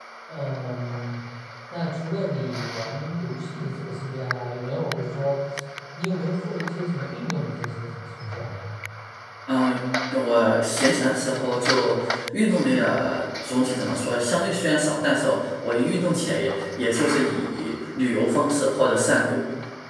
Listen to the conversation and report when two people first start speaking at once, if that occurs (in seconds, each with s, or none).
none